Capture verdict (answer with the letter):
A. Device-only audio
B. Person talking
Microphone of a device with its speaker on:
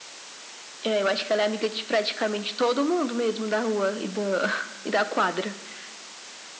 A